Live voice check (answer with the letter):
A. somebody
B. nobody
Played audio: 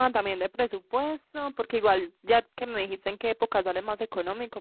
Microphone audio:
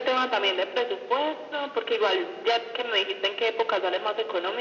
B